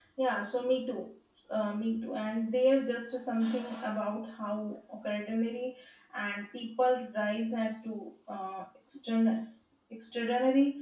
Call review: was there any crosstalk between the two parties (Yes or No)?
No